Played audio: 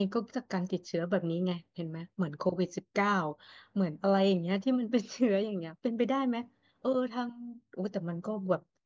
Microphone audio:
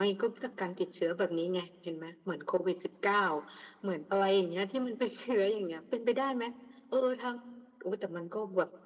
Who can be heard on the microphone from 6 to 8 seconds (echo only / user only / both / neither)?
echo only